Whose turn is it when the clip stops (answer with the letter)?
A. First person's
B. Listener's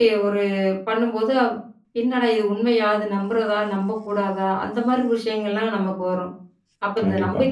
A